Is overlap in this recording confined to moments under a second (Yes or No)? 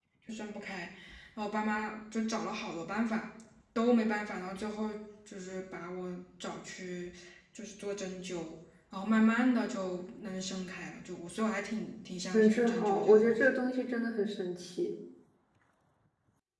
No